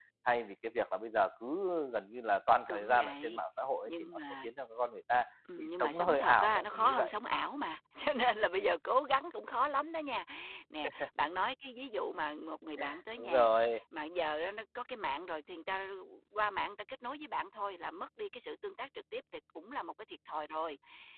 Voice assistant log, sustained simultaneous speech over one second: present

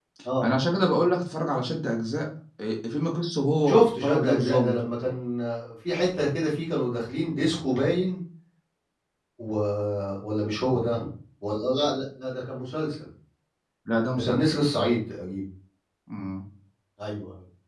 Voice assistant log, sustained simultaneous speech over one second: present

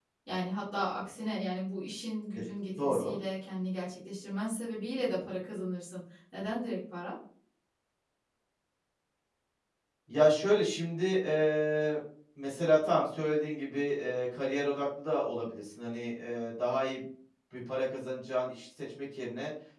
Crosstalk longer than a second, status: none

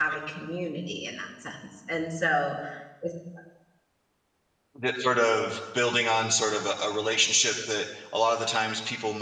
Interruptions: none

